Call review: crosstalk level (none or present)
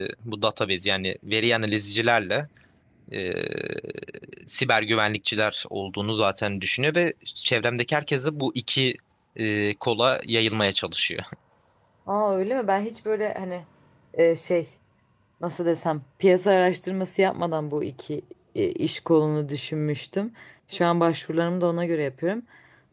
none